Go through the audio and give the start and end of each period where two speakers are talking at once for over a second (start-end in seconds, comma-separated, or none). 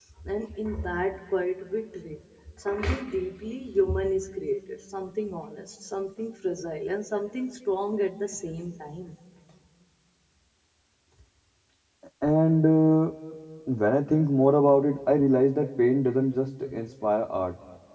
none